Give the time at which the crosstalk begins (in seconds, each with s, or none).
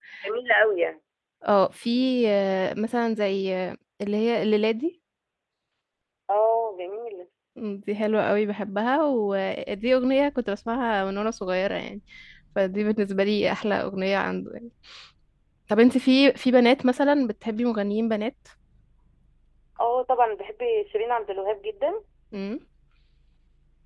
none